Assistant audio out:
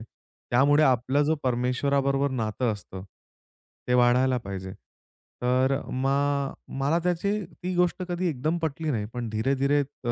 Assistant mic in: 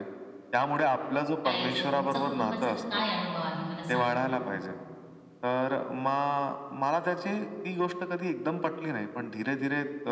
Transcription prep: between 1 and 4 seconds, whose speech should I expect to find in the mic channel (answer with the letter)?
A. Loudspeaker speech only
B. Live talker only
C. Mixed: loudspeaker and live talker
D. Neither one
C